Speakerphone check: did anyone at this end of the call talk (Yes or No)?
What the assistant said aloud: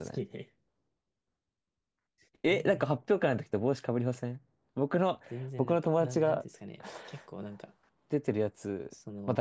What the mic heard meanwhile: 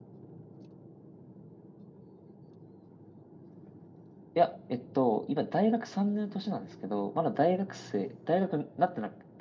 Yes